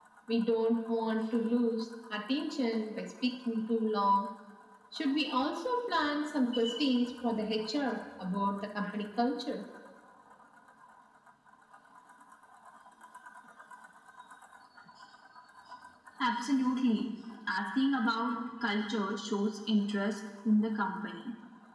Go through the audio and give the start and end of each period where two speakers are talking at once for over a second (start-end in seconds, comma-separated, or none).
none